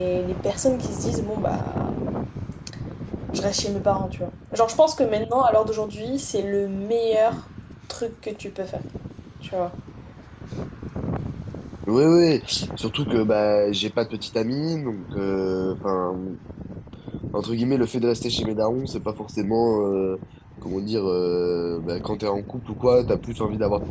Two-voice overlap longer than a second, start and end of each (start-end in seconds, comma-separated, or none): none